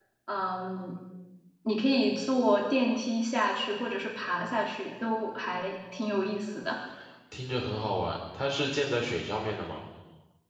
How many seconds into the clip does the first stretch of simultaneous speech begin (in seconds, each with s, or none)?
none